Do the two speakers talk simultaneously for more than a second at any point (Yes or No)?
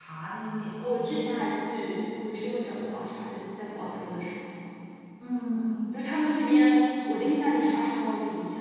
No